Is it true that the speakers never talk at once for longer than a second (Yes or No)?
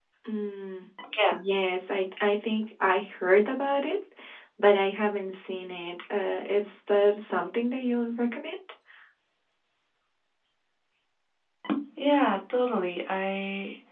Yes